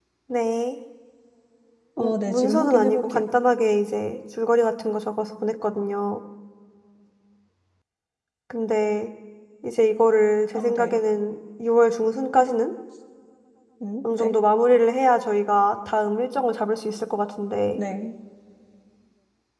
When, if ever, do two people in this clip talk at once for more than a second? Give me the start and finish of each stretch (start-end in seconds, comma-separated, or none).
2.0-3.2